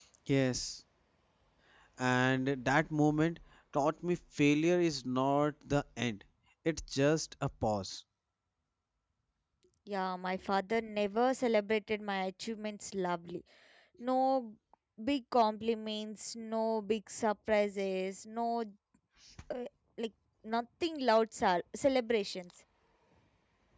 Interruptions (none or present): none